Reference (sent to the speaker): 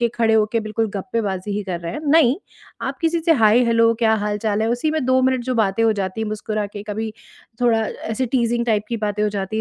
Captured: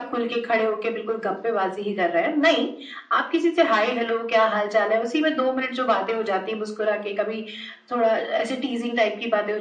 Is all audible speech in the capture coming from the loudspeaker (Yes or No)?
Yes